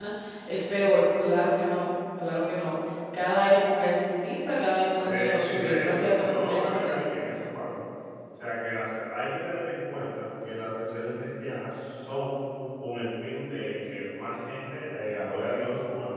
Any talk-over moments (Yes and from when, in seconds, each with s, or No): Yes, from 5.0 s